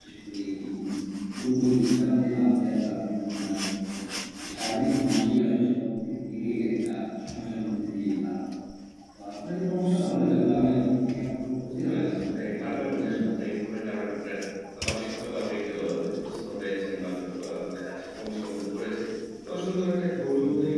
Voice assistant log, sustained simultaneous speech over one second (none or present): present